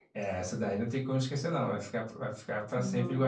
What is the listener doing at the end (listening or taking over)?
listening